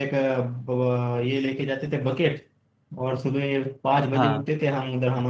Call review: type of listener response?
listening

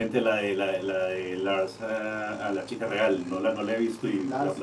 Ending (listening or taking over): taking over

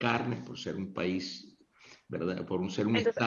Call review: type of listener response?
listening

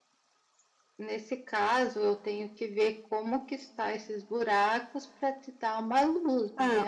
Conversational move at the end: taking over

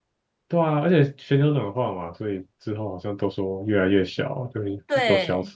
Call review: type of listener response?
taking over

